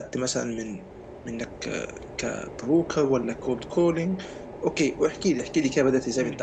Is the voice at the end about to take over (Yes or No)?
Yes